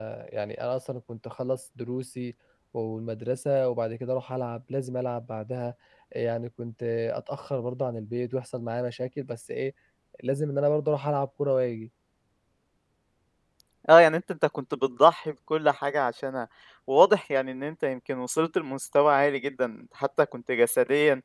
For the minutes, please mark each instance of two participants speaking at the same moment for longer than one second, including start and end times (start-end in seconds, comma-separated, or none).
none